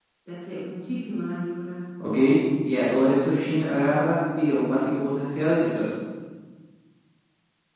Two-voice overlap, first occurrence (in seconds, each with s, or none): none